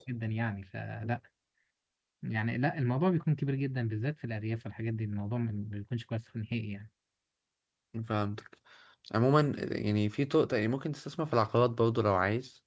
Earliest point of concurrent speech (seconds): none

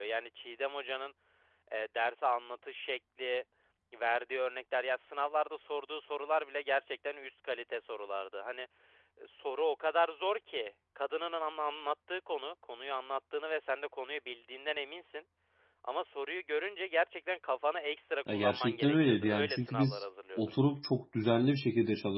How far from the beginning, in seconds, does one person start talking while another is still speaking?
18.3 s

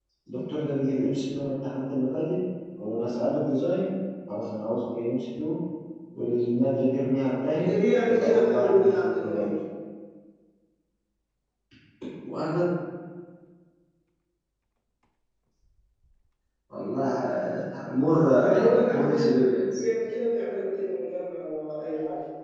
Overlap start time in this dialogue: 7.5 s

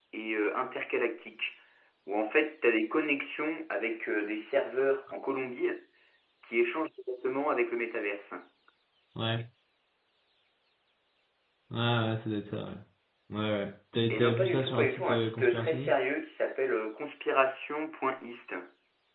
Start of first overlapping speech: 14.1 s

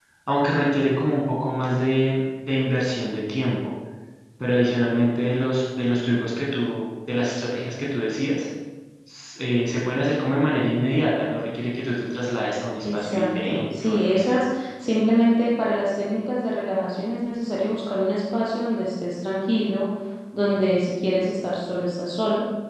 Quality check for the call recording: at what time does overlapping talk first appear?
12.8 s

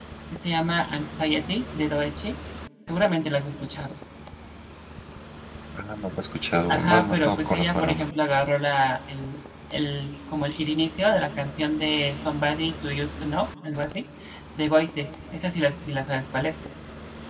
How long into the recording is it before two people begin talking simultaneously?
6.7 s

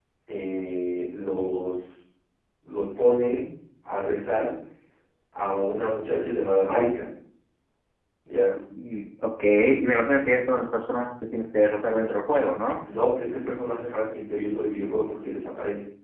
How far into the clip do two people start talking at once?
none

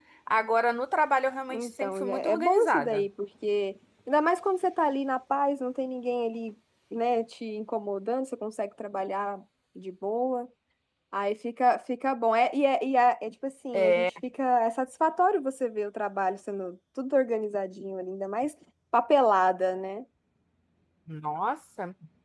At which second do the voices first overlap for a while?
1.5 s

